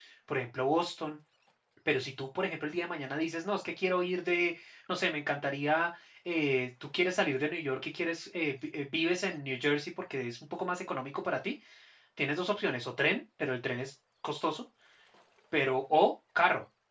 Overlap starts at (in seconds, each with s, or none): none